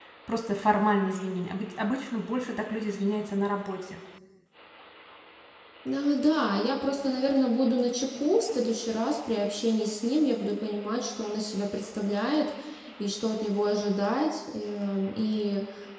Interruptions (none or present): none